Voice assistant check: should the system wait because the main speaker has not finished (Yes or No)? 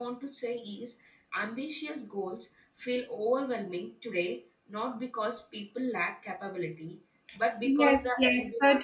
No